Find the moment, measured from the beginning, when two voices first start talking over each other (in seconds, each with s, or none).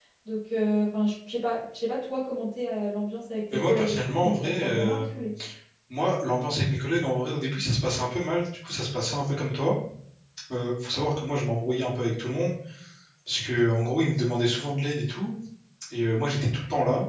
3.5 s